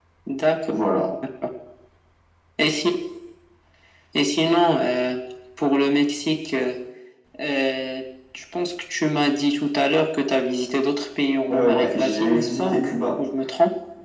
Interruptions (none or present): present